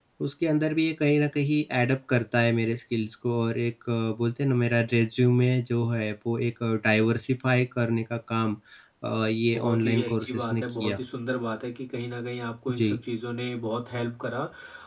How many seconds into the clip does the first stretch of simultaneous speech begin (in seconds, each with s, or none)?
9.6 s